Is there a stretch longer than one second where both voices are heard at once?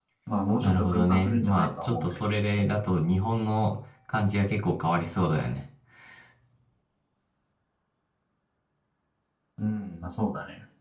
Yes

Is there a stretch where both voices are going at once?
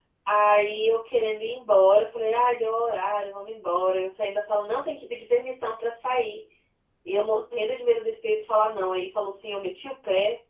No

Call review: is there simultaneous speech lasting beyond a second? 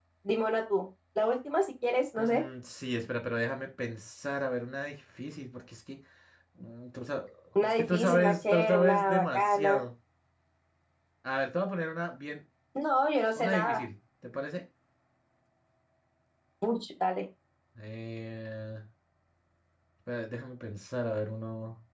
Yes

